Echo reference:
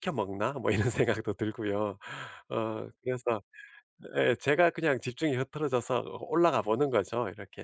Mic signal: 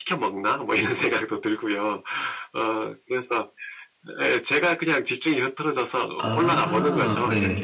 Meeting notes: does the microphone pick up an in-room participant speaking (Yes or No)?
Yes